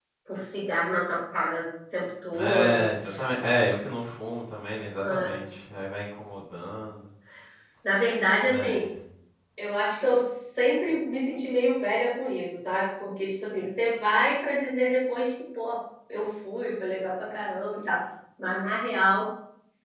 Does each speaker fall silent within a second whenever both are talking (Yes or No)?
Yes